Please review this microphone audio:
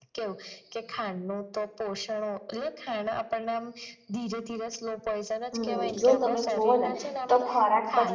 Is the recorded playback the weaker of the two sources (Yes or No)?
Yes